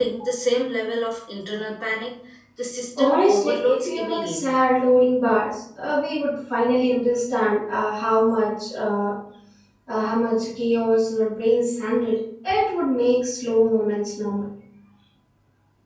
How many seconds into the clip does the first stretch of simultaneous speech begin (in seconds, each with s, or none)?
3.0 s